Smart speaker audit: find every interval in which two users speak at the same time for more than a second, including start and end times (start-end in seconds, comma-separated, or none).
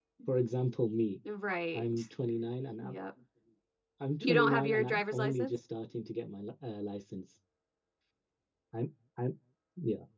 4.2-5.5